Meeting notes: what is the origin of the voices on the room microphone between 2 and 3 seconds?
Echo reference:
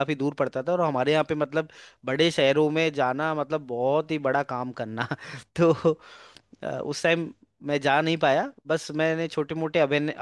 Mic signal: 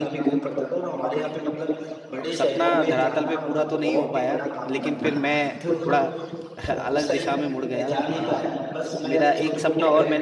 both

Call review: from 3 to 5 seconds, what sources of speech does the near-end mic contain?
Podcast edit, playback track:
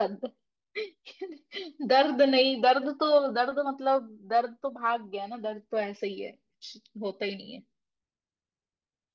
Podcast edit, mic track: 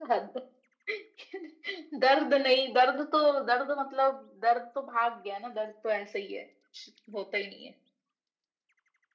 echo only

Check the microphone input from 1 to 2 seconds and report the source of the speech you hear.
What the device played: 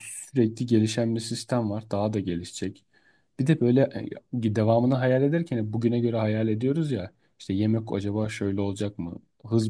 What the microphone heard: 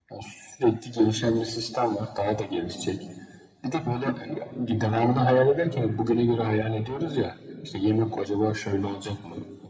echo only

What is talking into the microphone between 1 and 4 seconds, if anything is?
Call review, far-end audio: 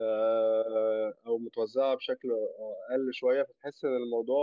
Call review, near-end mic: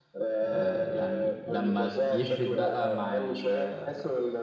both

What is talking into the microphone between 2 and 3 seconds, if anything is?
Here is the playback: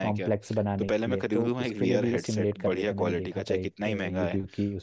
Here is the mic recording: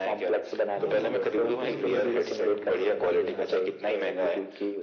both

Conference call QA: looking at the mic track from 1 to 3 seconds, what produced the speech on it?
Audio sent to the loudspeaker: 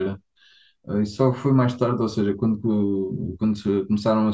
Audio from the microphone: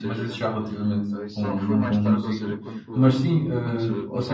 both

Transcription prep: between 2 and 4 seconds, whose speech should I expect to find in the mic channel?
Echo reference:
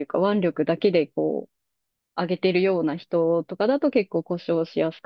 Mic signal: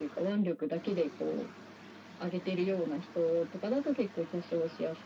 echo only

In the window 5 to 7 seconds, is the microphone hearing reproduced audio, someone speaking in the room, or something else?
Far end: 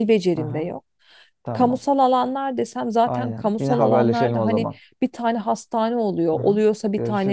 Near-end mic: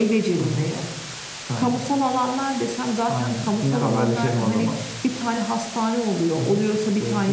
echo only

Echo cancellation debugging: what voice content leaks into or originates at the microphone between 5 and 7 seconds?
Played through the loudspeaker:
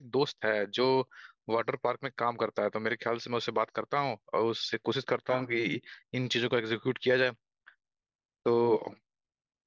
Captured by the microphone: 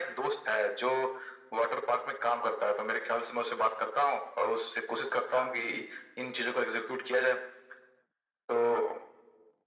echo only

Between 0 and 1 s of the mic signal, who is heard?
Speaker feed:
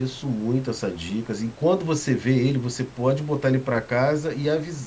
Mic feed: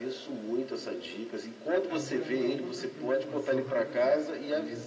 echo only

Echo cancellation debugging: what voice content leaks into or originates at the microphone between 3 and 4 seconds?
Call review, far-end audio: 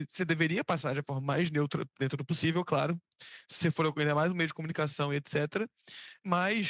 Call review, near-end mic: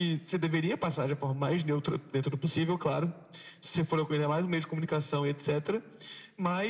echo only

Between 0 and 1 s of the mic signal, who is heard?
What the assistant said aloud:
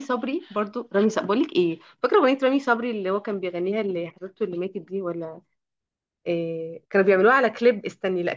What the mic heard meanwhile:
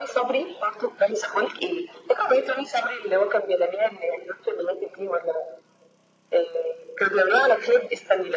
echo only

